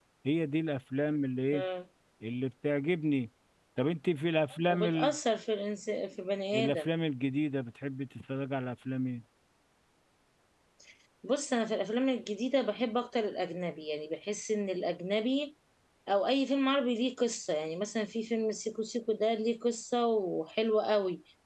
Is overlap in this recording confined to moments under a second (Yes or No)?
Yes